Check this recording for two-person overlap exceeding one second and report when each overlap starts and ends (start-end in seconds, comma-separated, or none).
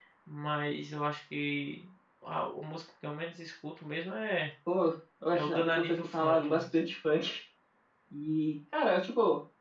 5.3-6.6